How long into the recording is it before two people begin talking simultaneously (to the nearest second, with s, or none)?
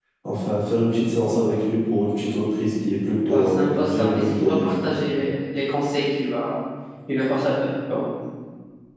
3 s